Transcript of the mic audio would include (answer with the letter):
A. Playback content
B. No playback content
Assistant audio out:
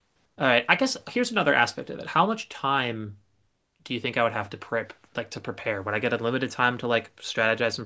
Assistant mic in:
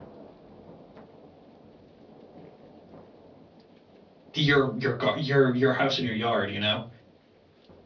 B